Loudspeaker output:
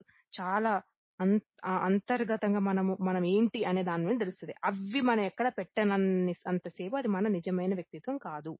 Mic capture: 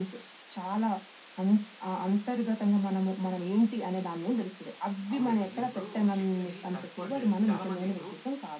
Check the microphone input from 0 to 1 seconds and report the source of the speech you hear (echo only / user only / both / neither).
echo only